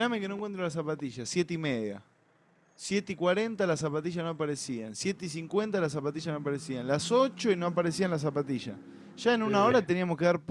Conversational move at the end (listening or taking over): listening